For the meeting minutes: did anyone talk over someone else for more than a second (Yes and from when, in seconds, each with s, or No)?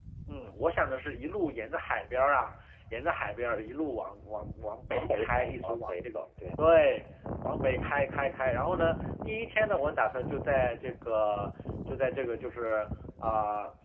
Yes, from 4.9 s